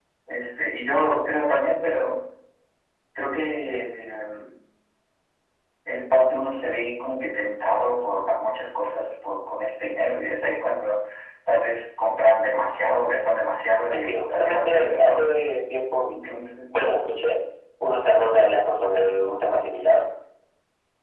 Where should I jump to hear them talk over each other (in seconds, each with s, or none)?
13.9 s